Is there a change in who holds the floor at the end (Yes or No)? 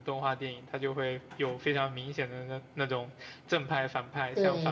No